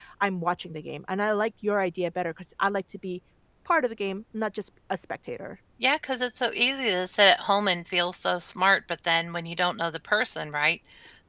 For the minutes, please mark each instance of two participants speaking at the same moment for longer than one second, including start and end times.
none

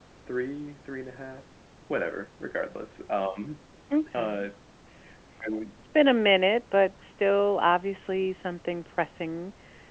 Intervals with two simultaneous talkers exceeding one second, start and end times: none

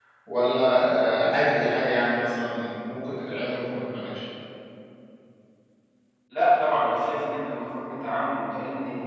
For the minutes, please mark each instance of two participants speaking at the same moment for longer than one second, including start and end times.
none

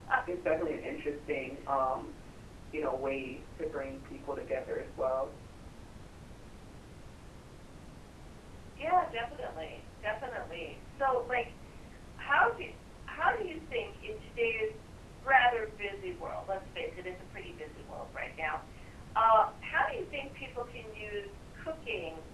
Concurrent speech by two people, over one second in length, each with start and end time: none

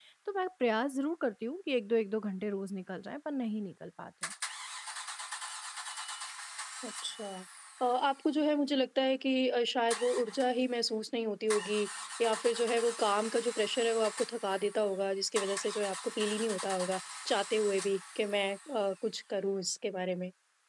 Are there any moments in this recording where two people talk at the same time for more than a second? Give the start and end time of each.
none

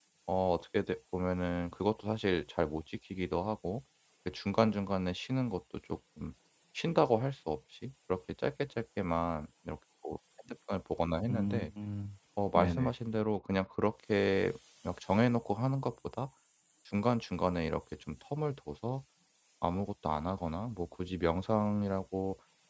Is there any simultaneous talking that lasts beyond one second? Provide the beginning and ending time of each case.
none

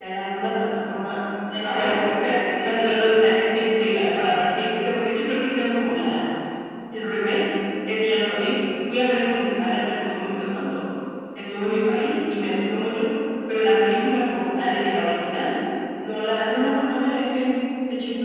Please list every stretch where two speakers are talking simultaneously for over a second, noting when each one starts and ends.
1.6-2.9

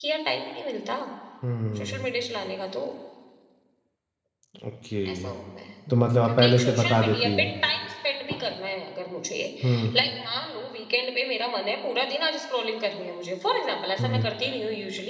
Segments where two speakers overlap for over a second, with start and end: 6.2-7.5

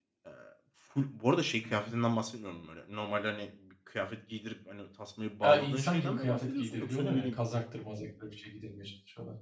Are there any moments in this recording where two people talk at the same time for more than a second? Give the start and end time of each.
5.4-7.4

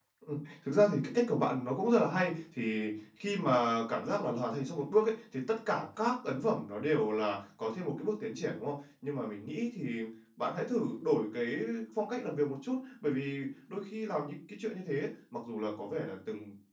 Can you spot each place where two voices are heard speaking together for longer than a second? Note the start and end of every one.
none

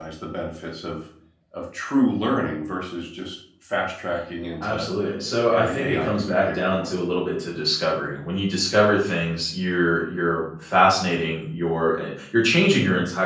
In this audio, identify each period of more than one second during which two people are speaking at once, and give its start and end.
5.5-7.0

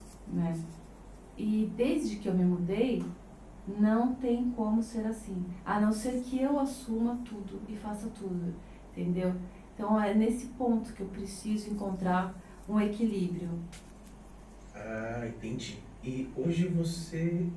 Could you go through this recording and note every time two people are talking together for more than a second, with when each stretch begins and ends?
none

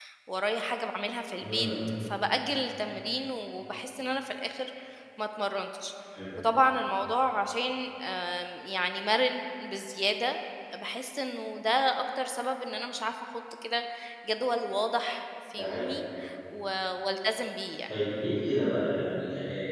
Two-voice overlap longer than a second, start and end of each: none

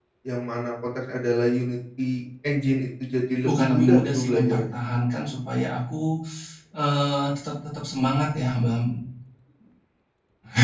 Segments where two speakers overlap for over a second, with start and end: 3.4-4.8

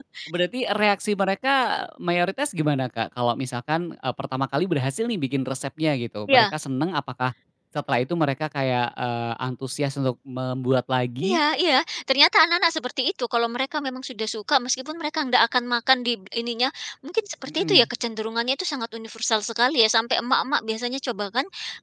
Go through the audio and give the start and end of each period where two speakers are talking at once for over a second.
none

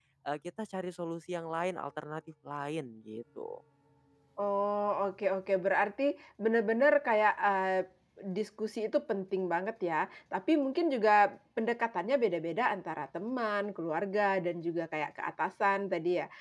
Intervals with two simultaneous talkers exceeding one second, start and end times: none

